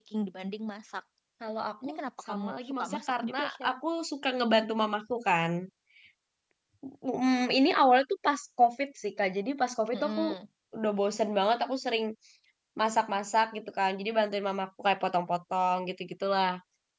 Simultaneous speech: Yes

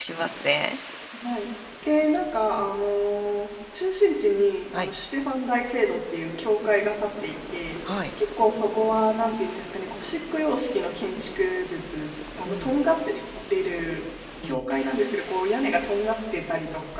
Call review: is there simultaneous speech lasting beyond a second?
No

